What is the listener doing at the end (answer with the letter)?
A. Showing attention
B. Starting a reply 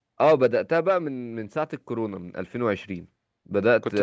B